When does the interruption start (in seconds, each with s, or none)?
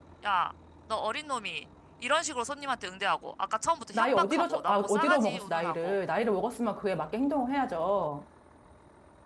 3.9 s